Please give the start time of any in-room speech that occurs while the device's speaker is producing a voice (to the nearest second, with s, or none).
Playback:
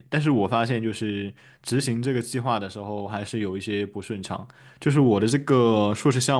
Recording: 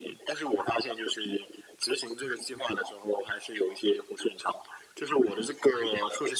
none